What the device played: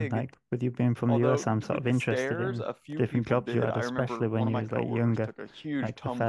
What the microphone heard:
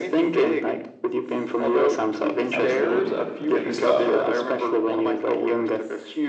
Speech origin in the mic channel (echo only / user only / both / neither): both